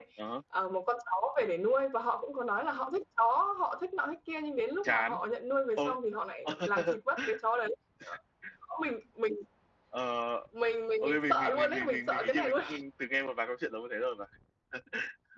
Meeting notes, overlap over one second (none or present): present